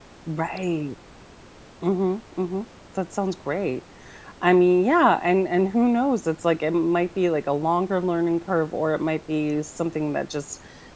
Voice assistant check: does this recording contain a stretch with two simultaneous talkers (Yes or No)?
No